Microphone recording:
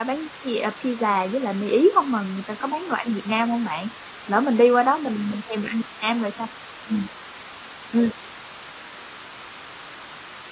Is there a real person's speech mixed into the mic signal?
Yes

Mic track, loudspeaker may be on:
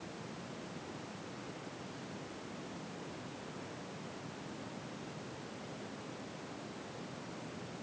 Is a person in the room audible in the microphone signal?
No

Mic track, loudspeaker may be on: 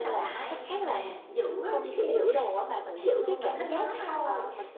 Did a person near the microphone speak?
Yes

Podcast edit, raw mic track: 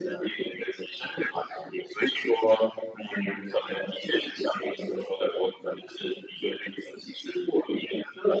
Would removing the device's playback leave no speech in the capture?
Yes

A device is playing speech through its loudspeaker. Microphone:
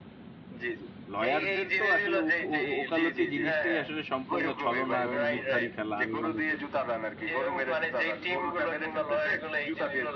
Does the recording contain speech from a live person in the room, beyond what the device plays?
Yes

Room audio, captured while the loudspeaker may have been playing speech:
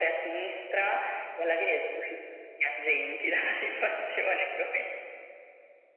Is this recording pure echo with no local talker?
Yes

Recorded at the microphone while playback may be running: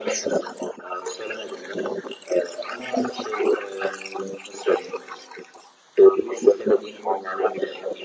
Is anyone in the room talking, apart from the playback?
No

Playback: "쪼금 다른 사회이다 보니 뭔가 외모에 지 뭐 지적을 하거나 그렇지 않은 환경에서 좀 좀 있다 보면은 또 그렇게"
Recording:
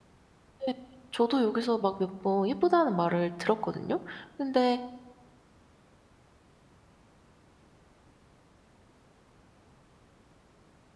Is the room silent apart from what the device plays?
No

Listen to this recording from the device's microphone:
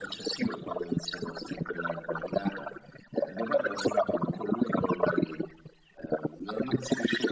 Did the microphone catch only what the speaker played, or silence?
Yes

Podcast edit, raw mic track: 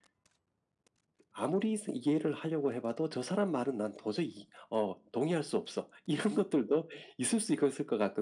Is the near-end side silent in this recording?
Yes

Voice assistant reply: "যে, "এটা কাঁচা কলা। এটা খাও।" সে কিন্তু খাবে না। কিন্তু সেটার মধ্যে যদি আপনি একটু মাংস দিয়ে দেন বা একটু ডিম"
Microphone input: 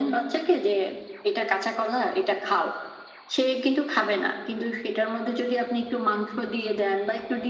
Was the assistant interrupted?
No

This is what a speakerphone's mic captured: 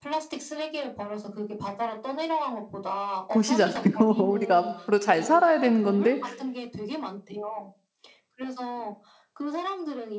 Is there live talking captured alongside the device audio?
Yes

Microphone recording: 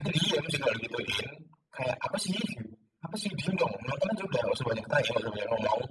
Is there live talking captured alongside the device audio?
No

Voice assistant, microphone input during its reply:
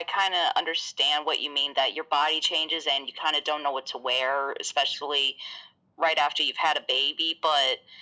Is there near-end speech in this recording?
No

